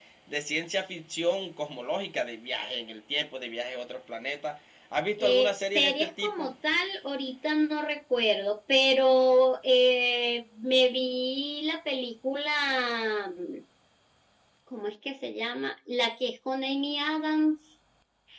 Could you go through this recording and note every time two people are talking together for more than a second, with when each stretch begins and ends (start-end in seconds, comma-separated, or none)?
5.2-6.5